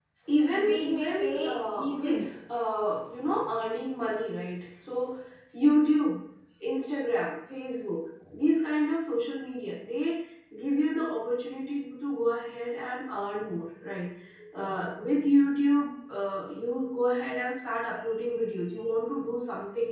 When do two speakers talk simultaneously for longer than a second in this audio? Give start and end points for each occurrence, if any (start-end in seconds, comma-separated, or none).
0.5-2.2